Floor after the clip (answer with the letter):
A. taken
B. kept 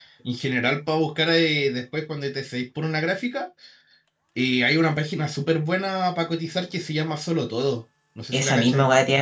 A